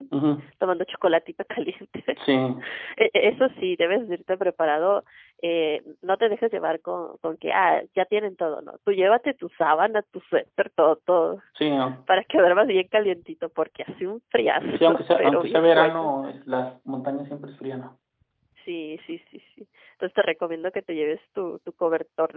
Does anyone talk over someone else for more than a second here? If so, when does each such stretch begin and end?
14.7-16.1

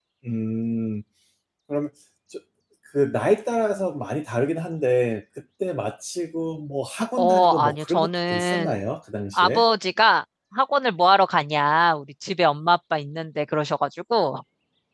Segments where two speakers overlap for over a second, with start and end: 7.2-8.8

